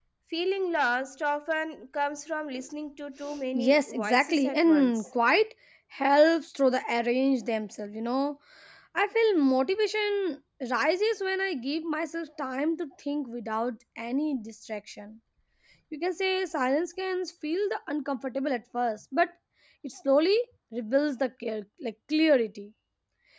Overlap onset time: 4 s

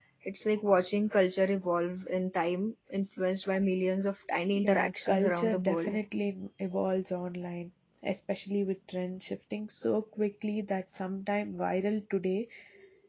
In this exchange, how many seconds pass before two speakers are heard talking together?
5 s

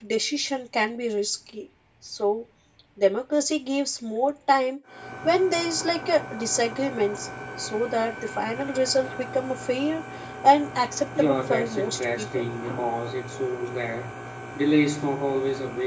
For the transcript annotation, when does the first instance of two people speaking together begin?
11 s

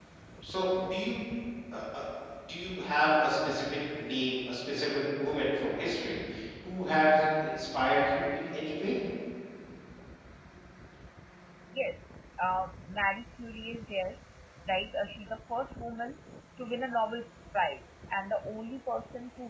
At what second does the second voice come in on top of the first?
none

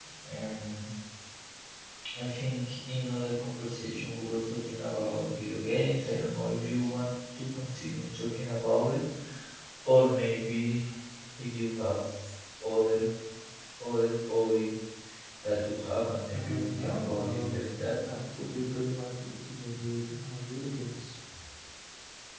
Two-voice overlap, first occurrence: 16 s

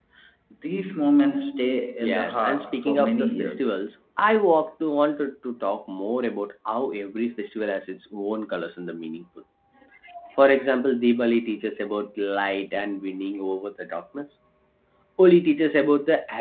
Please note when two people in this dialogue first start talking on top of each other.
2 s

